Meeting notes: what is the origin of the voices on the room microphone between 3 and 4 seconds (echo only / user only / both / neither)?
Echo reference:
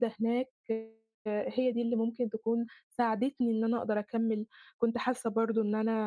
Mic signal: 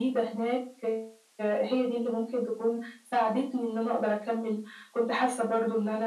echo only